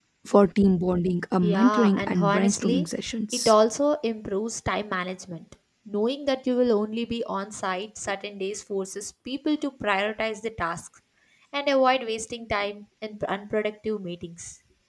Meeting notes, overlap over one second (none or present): present